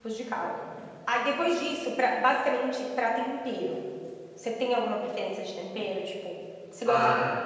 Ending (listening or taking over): taking over